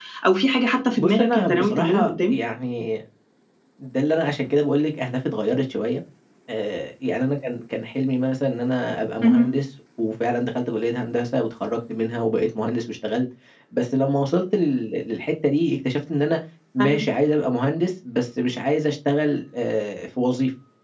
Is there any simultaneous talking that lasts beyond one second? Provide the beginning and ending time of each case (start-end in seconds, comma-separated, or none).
1.0-2.4